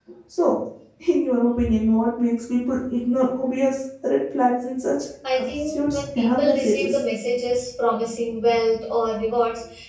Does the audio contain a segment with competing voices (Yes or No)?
Yes